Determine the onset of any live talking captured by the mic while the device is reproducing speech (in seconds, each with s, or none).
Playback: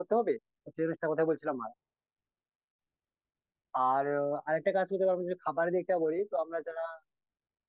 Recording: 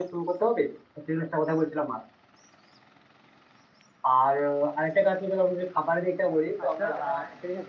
6.6 s